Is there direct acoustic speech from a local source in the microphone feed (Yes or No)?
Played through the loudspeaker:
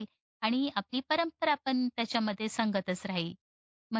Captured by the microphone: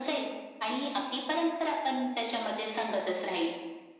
No